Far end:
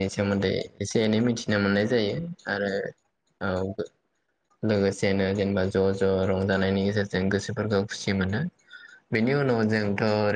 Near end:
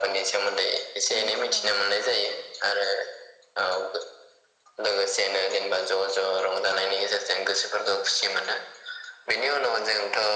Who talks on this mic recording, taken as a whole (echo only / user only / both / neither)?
both